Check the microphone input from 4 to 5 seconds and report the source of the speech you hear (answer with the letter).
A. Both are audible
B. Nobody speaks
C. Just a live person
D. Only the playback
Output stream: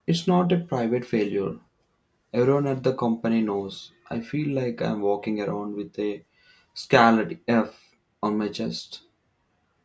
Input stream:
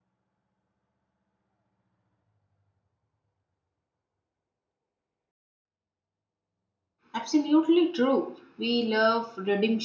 B